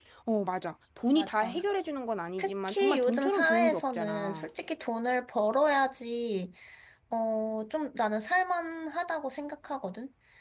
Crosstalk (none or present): present